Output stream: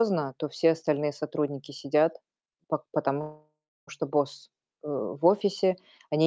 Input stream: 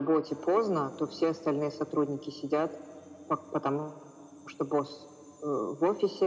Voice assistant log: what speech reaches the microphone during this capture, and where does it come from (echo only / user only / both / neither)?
echo only